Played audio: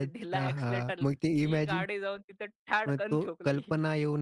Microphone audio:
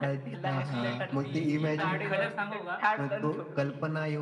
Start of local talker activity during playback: 0.3 s

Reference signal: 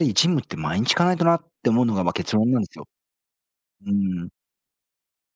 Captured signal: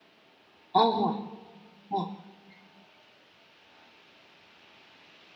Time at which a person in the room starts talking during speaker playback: 0.7 s

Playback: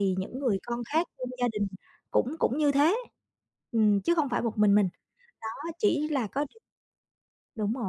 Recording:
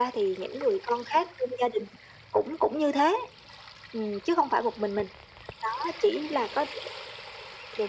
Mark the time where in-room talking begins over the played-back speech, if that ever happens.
none

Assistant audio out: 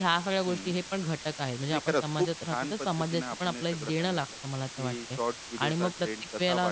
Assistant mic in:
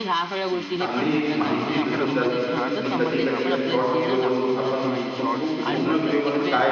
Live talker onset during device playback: 0.8 s

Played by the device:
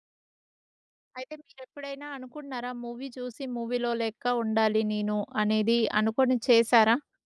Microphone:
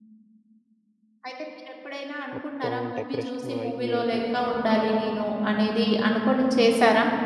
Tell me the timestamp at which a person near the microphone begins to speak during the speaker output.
2.4 s

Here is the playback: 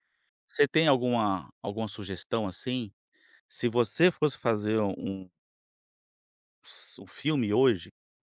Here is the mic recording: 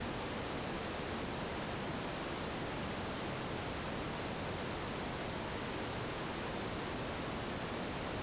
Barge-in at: none

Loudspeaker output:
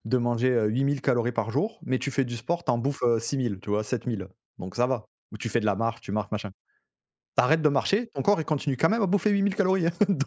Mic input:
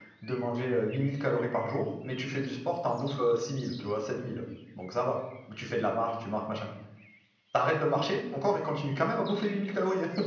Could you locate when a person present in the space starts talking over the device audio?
none

